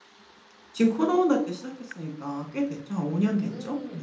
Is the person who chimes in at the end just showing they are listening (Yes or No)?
No